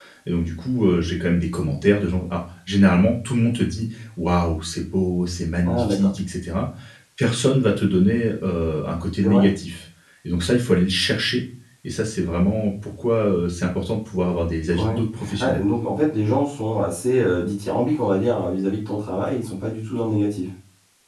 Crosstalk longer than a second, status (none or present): none